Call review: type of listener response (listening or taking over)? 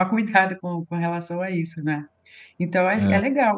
listening